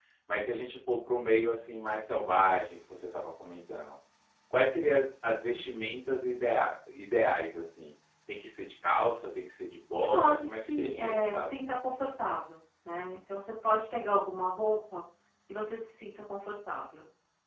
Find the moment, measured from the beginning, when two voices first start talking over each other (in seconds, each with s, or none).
10.0 s